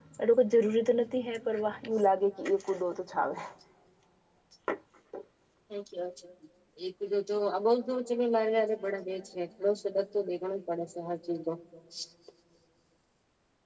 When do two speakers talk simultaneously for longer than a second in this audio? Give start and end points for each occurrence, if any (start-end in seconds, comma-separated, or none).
none